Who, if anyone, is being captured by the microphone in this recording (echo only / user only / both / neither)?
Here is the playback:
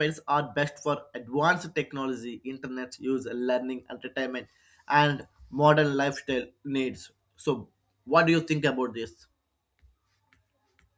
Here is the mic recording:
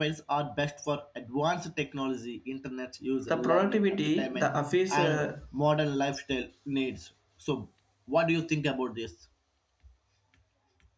both